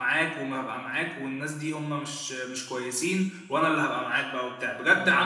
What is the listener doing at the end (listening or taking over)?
listening